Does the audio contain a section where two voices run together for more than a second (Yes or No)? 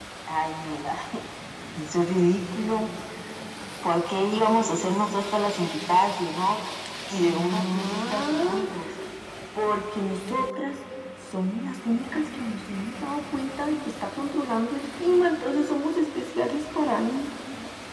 Yes